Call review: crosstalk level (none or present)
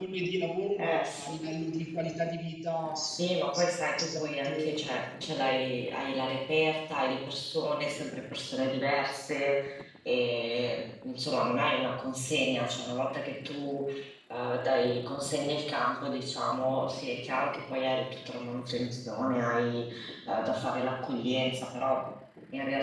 present